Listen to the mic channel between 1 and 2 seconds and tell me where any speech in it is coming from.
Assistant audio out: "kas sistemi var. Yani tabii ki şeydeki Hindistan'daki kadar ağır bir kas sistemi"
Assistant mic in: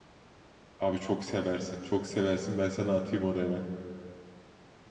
user only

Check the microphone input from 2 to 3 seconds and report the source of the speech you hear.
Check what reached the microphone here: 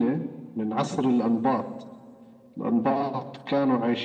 echo only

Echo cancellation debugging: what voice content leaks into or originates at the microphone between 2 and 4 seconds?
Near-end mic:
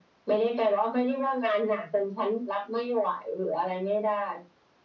echo only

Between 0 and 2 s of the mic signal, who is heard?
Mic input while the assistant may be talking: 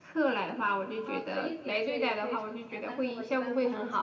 echo only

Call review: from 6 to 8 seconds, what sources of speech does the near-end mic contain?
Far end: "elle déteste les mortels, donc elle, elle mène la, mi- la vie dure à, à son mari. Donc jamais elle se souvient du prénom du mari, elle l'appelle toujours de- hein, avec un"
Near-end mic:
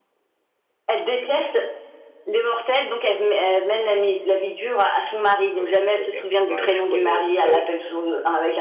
both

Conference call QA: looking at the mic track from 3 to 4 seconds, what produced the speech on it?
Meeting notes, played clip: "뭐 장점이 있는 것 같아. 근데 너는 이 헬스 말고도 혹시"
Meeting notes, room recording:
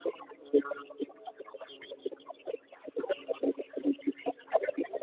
echo only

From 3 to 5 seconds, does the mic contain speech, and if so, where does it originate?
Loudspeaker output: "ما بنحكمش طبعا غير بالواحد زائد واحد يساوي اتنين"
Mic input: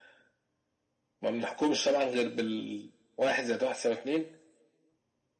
echo only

